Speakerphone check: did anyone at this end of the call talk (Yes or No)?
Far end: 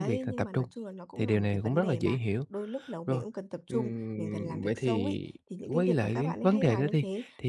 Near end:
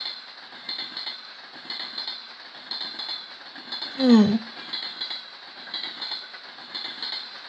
Yes